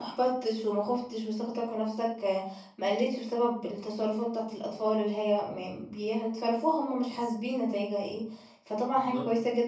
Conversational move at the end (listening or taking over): listening